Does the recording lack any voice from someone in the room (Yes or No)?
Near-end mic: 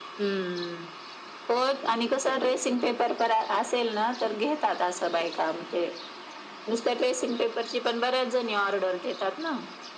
Yes